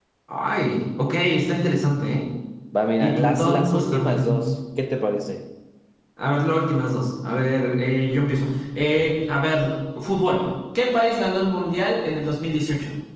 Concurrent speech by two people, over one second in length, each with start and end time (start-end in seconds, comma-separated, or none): 3.0-4.4